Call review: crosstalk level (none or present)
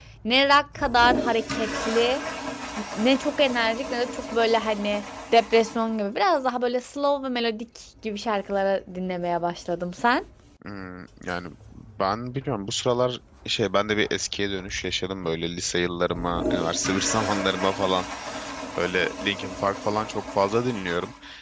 none